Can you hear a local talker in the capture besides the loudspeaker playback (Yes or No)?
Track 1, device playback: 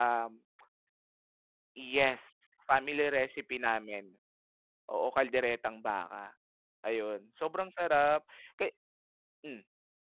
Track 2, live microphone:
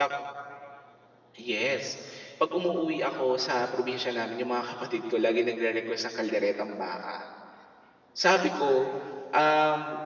Yes